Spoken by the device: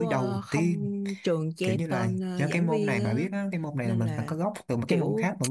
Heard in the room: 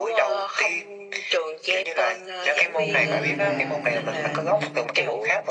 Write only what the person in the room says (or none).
thì về nhà làm xong rồi